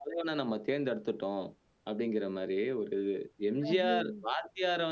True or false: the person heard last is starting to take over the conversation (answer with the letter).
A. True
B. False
B